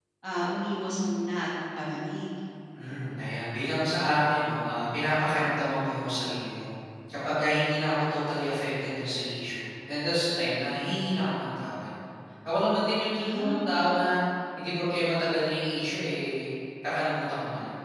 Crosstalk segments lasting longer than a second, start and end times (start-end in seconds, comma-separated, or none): none